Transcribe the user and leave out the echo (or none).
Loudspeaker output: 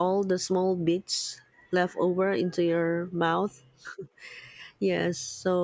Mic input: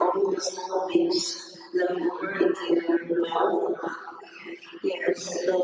none